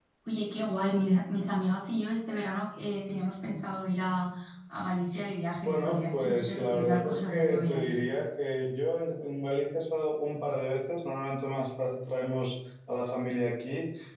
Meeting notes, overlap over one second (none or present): present